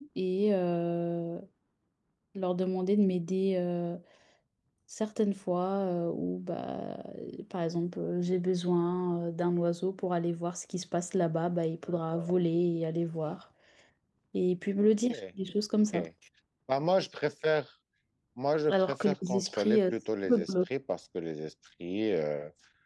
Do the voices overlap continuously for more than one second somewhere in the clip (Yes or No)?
Yes